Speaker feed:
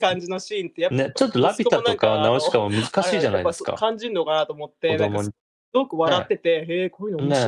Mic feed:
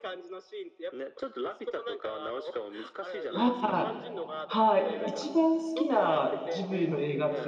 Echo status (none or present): present